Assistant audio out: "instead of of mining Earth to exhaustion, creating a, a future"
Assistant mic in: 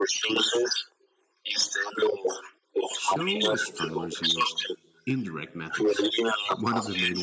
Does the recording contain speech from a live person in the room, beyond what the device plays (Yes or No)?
Yes